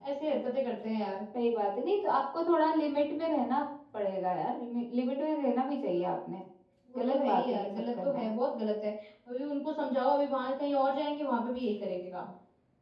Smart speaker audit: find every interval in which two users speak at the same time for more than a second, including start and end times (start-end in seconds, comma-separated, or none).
7.0-8.3